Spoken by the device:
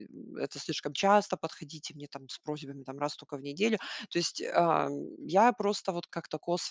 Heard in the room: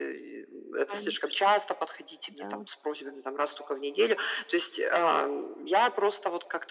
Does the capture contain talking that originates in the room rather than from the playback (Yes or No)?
Yes